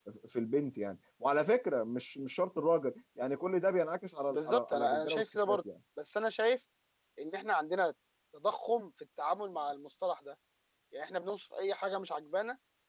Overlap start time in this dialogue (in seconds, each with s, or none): 4.3 s